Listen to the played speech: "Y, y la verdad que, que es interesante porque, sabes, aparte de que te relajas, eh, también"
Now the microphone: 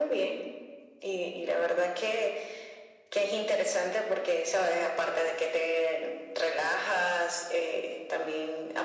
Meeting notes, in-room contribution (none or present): none